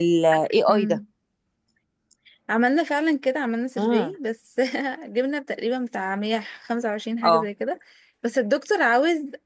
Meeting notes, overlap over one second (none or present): none